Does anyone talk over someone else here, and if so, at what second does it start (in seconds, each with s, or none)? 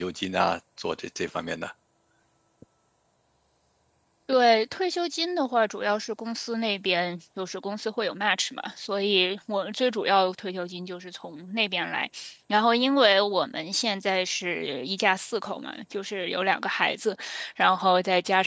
none